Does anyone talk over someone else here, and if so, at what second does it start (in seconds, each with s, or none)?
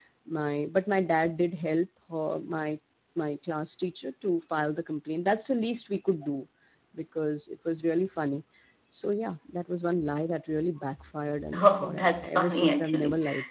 11.5 s